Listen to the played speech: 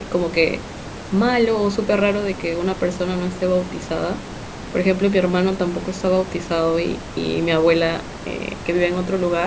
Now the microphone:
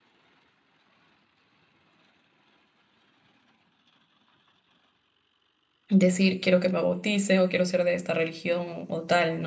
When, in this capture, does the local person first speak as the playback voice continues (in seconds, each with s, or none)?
5.9 s